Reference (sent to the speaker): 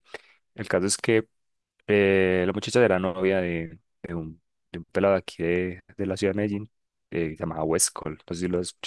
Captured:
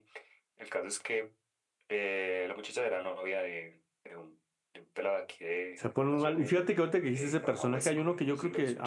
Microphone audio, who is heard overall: both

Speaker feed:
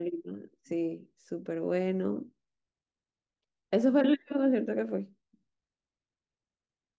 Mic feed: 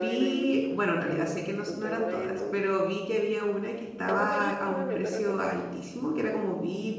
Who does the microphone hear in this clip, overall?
both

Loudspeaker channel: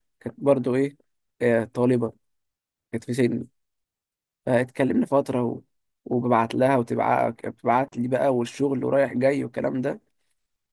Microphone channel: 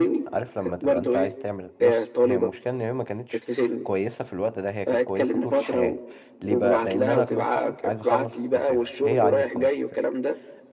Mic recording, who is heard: both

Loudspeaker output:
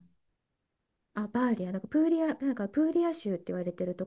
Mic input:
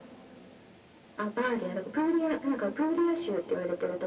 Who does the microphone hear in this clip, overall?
echo only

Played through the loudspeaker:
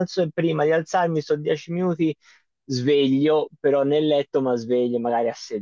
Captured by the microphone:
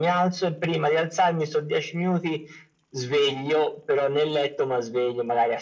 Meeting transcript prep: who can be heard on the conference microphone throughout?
echo only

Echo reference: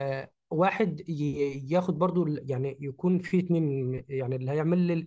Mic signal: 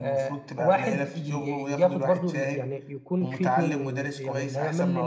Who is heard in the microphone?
both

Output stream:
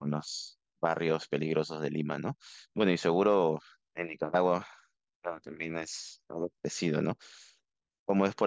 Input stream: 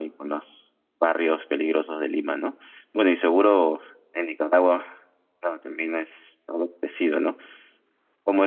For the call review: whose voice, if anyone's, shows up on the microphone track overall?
echo only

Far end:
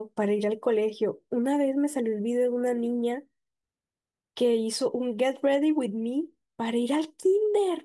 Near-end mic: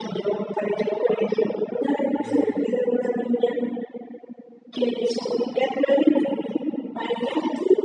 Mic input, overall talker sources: both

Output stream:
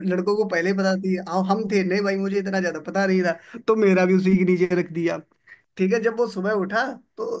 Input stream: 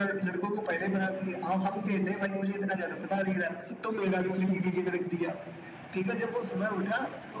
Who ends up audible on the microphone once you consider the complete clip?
echo only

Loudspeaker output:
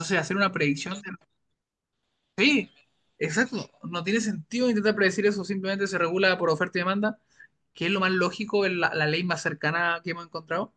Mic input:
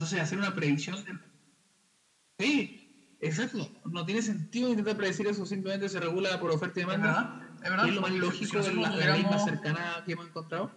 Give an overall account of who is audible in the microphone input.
both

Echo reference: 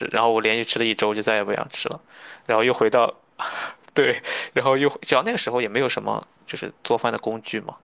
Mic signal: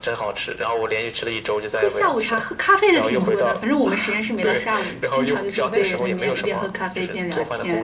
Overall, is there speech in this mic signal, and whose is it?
both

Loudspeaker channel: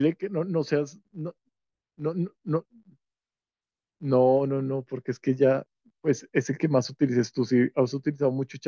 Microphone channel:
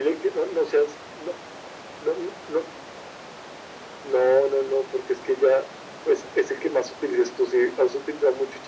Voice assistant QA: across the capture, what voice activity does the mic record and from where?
echo only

